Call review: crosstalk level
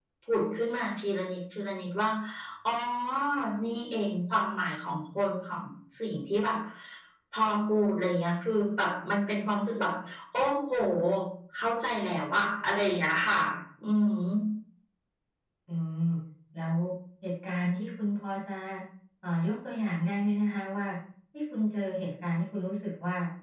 none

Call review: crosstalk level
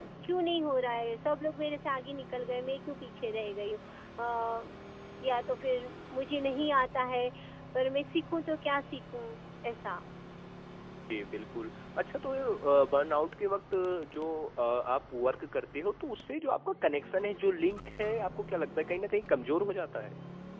none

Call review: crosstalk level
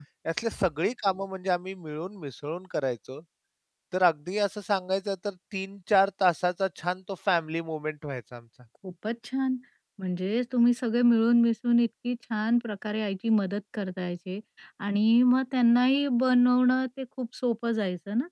none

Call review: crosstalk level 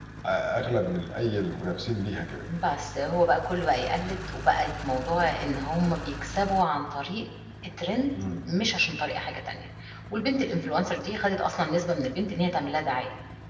none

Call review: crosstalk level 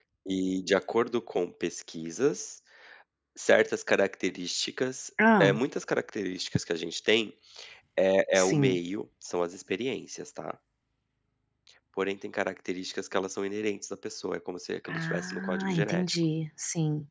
present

